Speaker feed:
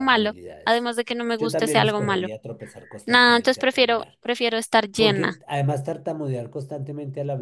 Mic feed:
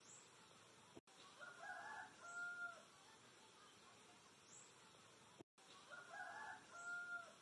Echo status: none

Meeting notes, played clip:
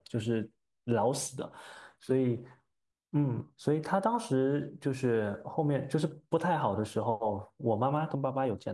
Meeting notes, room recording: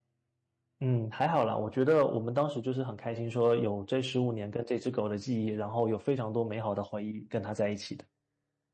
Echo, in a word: none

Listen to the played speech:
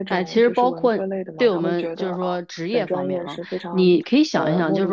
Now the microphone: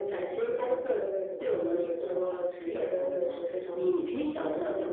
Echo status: present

